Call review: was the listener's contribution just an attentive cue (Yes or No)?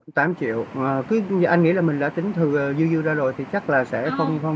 Yes